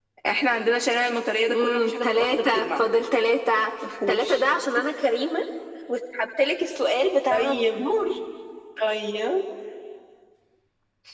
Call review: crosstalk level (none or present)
present